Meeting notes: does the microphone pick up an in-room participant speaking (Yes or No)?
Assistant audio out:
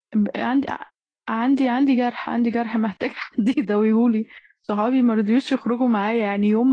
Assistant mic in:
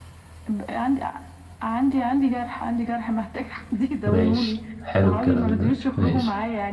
Yes